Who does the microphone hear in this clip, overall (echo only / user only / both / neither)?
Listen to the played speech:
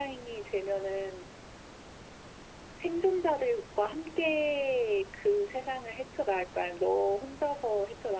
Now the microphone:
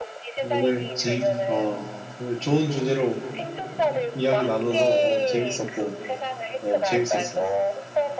both